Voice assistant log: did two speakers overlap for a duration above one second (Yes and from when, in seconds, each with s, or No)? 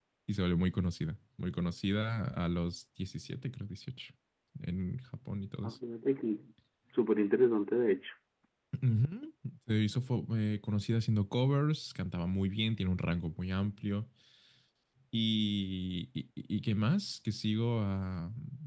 No